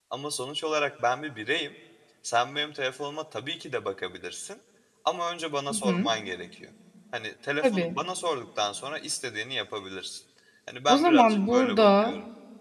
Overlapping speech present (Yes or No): Yes